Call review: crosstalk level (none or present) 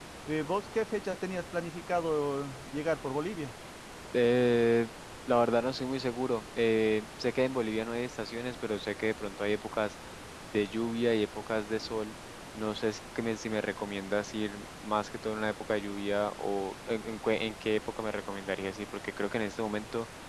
none